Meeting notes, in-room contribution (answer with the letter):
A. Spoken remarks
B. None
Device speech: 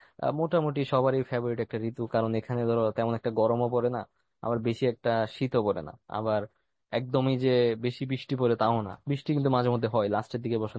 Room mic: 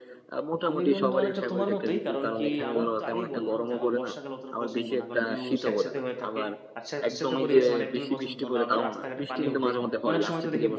A